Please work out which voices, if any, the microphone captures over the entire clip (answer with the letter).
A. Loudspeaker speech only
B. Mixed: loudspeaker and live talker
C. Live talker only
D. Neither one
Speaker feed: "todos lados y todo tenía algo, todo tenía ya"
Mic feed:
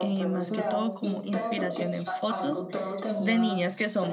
B